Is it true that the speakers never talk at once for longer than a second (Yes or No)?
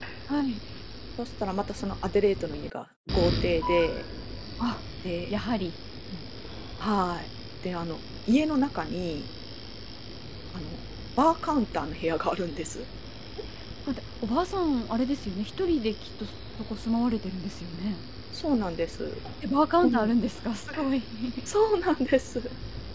Yes